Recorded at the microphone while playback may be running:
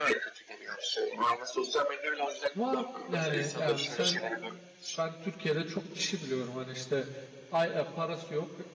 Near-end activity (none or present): present